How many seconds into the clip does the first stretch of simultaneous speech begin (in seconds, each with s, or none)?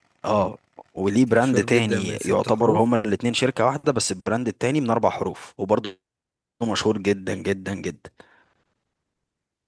1.3 s